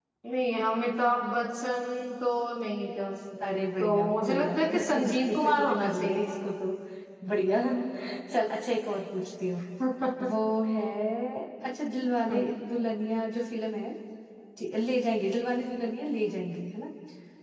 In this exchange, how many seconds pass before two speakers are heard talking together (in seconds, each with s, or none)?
3.4 s